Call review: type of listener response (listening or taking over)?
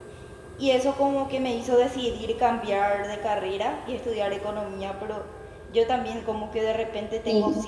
listening